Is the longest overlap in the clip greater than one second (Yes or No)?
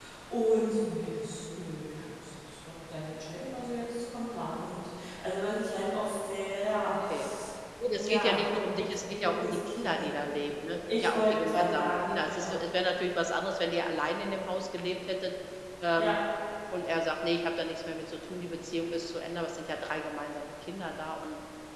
Yes